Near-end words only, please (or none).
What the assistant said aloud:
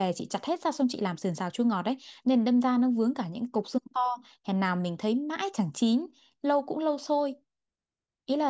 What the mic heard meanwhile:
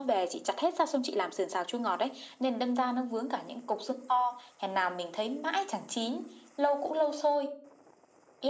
none